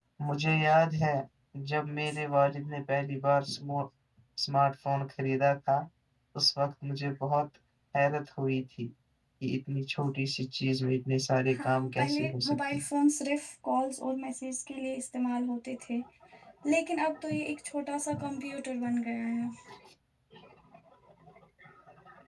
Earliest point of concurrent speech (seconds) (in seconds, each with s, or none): 11.6 s